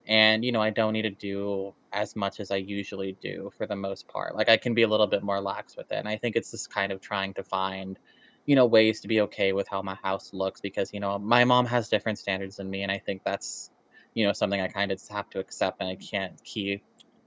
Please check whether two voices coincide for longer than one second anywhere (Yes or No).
No